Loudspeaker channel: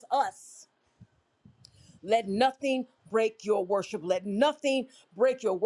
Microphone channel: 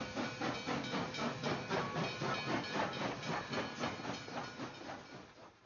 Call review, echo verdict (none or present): none